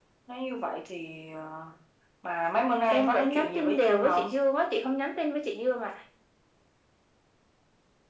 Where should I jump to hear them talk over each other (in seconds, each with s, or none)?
2.9 s